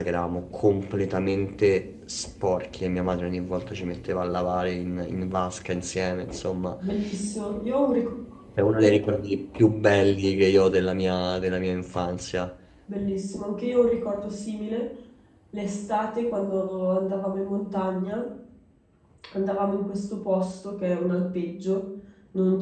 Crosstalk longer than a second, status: none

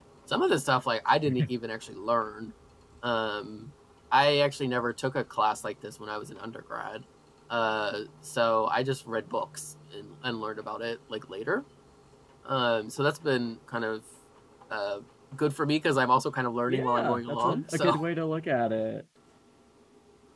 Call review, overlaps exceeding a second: present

